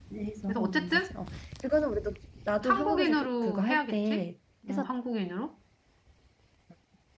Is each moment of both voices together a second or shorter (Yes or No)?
No